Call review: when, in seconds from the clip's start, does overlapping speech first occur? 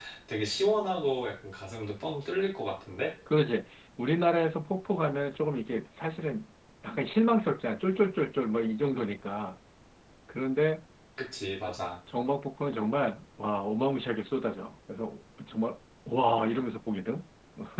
none

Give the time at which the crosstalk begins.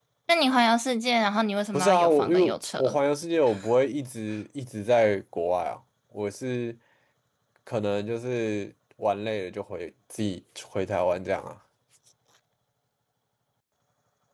1.7 s

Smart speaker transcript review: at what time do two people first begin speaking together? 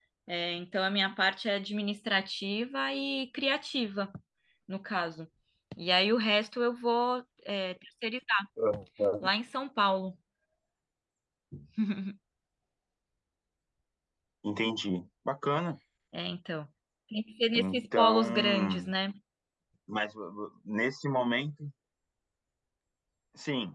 17.6 s

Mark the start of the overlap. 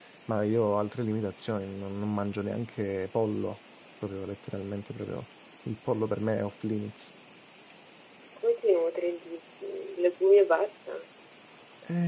none

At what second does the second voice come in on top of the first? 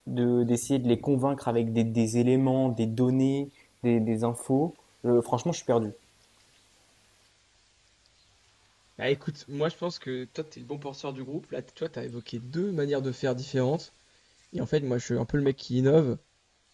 none

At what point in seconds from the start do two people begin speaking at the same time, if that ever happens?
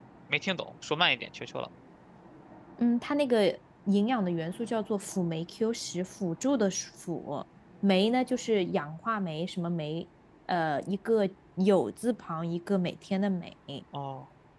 none

